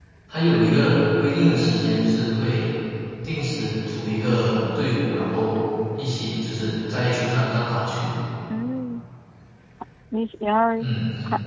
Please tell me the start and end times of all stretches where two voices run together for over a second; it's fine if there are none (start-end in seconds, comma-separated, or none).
none